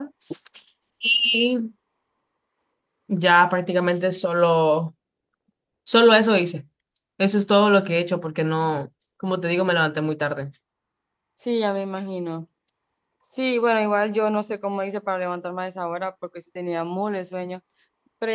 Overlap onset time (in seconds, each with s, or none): none